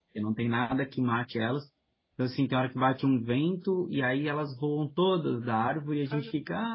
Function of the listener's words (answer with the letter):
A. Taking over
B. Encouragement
B